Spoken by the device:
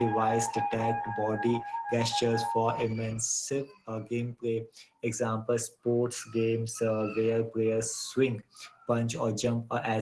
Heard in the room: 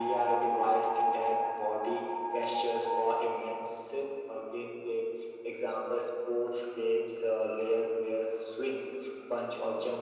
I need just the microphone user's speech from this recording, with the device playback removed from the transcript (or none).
none